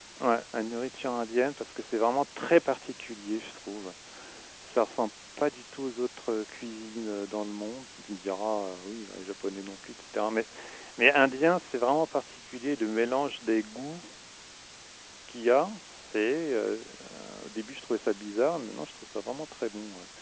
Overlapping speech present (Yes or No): No